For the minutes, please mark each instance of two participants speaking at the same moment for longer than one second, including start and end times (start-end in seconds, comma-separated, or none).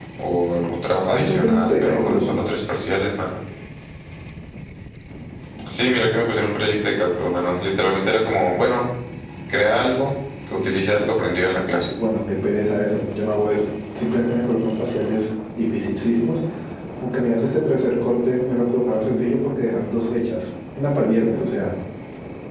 1.1-2.3